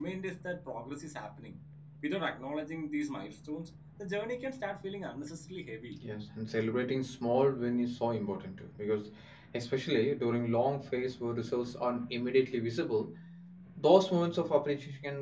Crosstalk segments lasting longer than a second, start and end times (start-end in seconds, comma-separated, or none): none